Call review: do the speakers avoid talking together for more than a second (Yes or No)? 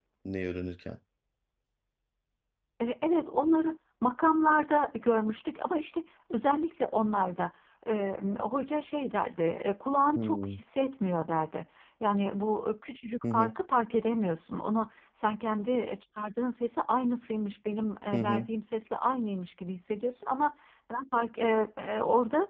Yes